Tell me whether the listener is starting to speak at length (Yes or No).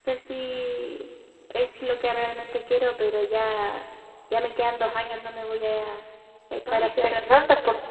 Yes